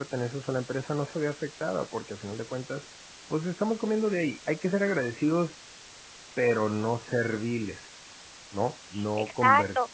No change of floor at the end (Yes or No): No